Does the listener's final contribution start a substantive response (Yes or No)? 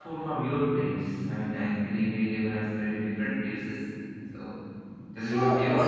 Yes